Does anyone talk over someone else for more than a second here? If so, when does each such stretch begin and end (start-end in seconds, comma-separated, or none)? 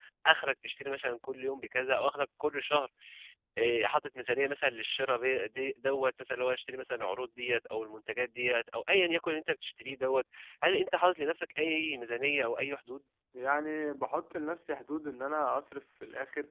none